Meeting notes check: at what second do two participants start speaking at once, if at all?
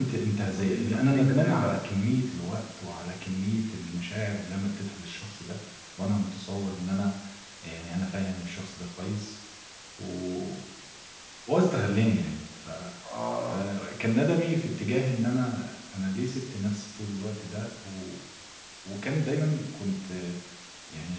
0.5 s

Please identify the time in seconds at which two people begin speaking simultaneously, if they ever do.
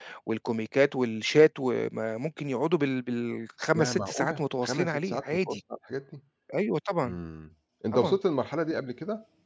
3.7 s

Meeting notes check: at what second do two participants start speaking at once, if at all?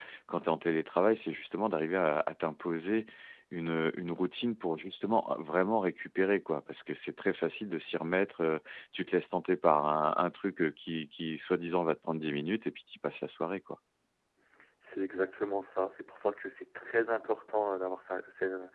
none

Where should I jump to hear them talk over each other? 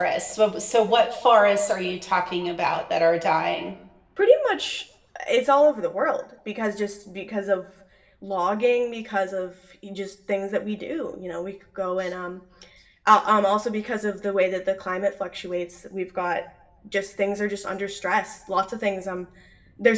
none

